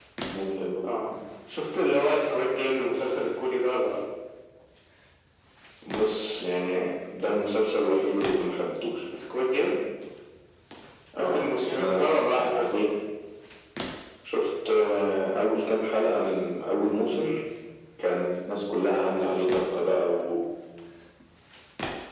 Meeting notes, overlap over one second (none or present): present